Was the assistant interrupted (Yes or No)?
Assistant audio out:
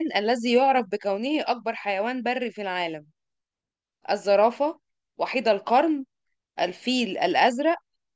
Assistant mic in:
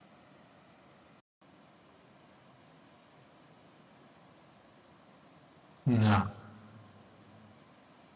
Yes